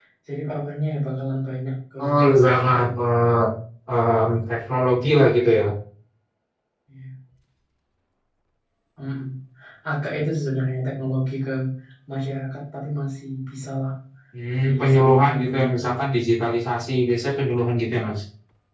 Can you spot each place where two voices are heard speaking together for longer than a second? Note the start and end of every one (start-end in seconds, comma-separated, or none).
14.5-16.0